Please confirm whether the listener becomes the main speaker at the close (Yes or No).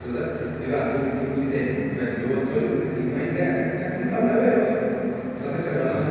No